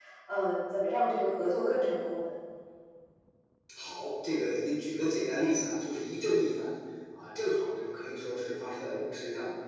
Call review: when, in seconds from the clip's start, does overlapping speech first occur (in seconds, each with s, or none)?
none